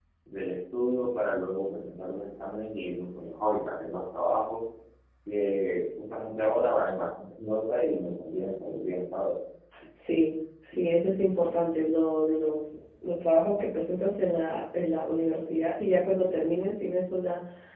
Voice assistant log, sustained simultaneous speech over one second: none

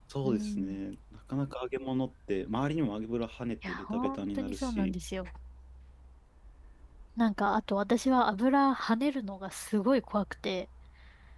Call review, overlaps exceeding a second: present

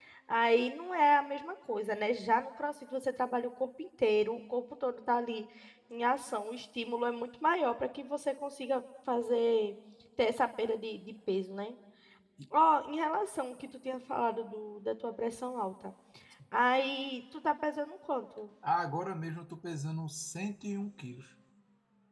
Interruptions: none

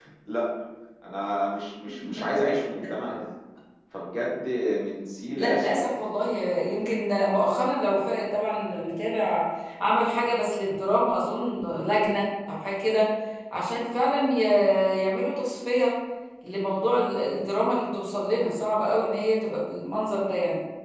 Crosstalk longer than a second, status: none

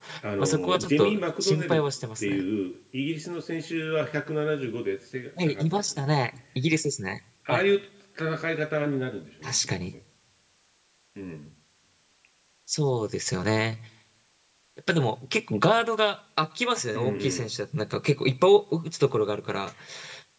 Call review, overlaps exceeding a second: present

